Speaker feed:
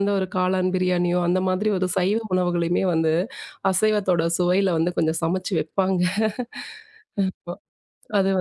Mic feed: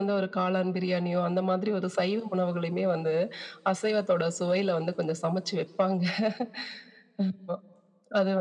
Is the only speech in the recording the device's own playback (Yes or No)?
Yes